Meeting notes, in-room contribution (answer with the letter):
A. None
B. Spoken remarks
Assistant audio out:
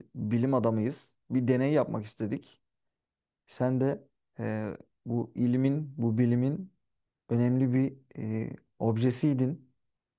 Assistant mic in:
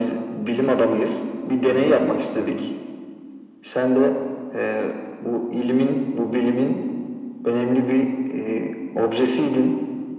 B